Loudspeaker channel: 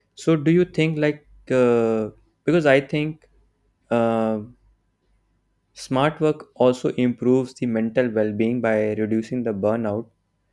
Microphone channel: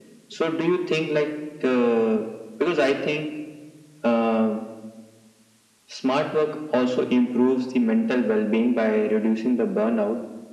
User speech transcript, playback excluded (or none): none